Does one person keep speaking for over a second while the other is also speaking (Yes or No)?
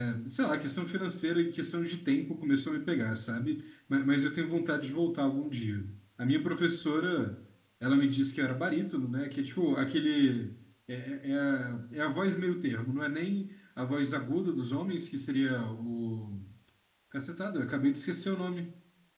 No